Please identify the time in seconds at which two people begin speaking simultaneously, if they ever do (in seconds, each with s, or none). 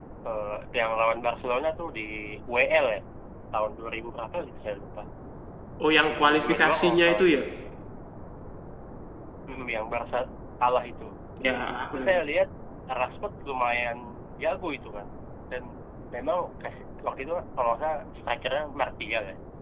6.1 s